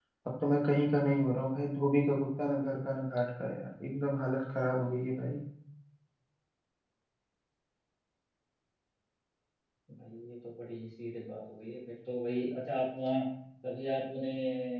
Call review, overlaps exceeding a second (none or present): none